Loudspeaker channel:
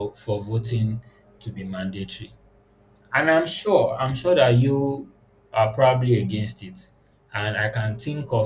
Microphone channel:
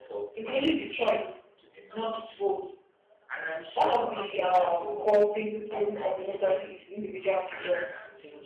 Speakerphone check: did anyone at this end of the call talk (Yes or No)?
Yes